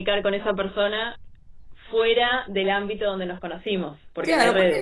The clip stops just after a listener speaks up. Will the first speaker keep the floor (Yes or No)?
No